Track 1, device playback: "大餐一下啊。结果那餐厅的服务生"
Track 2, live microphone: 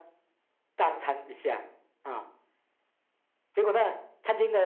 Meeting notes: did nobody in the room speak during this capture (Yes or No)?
Yes